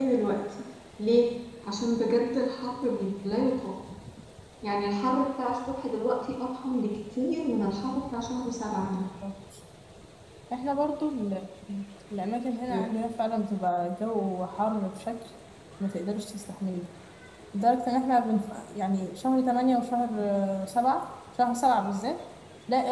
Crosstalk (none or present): none